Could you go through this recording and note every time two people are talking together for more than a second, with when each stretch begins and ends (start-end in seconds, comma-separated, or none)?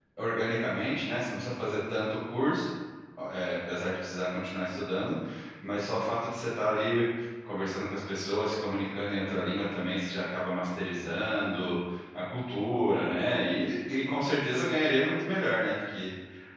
none